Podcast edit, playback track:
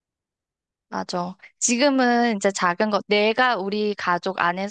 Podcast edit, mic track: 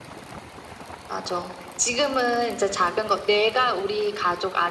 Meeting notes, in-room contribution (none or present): none